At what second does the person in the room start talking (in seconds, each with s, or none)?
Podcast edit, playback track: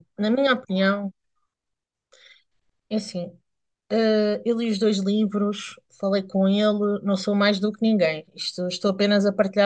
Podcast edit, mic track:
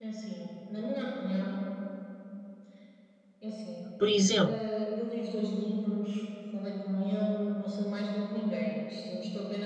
4.0 s